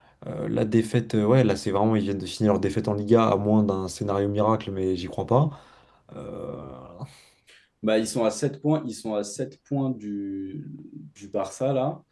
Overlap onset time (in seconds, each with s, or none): none